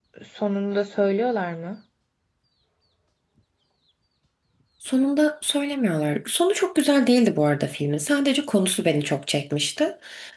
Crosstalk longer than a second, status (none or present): none